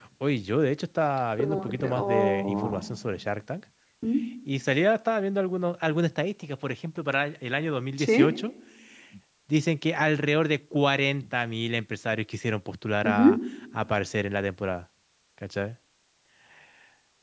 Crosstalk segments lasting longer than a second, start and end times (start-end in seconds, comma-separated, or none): 1.4-2.8